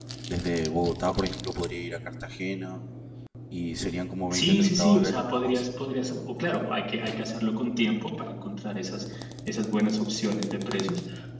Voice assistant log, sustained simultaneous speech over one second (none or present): present